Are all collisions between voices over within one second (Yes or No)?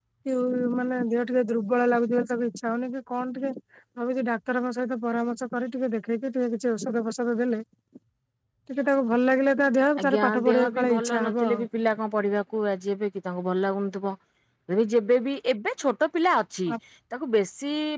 No